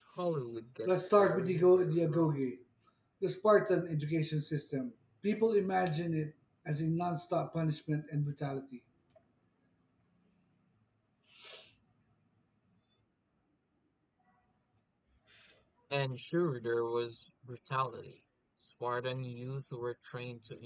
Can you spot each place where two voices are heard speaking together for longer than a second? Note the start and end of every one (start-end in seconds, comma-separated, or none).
0.8-2.4